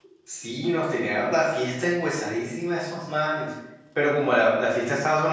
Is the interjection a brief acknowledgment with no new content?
Yes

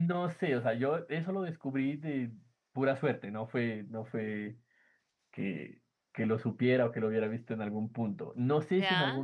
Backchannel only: Yes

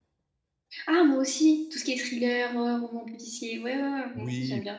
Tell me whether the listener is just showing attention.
No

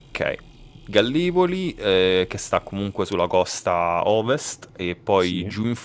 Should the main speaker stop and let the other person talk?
No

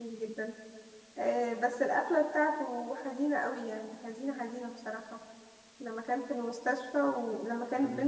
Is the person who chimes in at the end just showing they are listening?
Yes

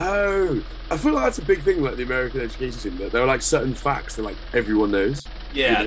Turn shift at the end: Yes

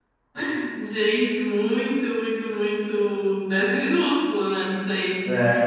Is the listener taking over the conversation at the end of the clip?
Yes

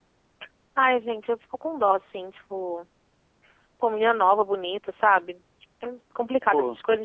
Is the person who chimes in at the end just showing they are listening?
Yes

